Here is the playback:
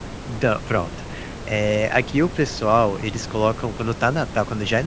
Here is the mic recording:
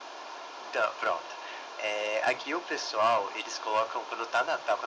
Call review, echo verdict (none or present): present